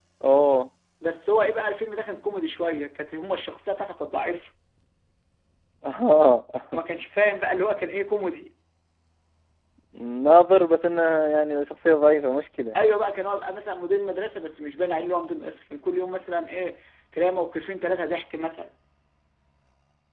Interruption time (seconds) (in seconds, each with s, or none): none